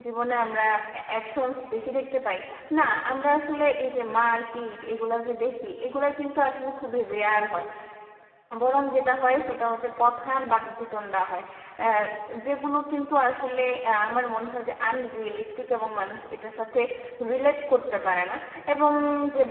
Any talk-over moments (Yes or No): No